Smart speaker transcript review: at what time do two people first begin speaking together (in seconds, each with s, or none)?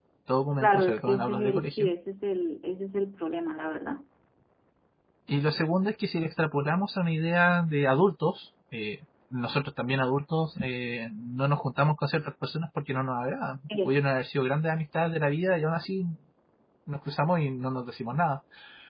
0.6 s